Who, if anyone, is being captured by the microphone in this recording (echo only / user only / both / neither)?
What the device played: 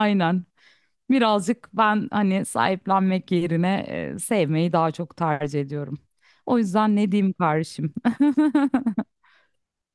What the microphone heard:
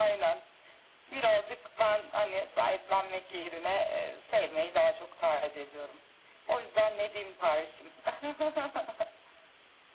echo only